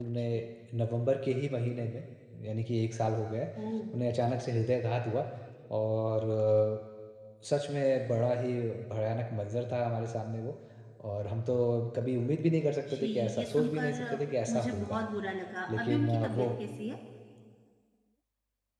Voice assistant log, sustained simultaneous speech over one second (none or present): present